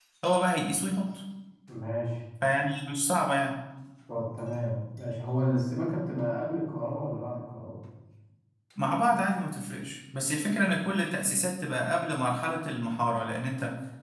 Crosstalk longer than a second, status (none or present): none